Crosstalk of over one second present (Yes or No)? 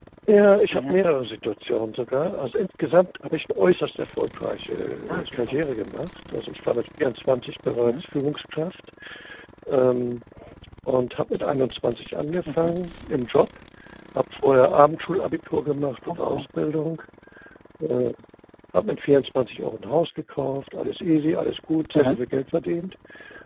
No